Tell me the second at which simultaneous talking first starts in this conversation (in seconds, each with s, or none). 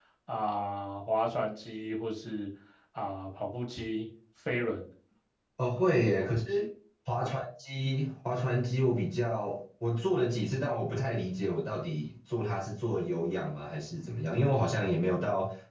none